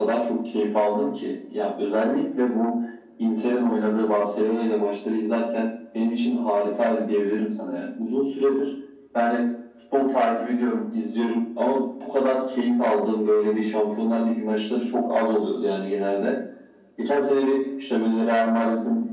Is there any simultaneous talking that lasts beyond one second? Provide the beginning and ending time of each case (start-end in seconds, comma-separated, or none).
none